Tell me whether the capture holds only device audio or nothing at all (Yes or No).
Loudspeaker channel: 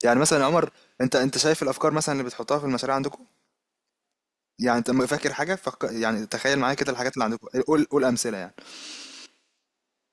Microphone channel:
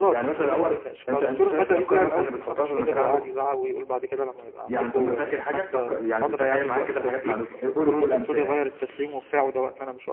No